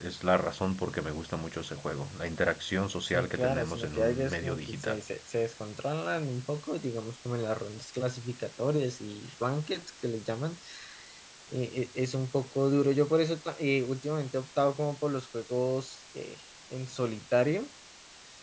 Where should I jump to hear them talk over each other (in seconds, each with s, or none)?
3.0 s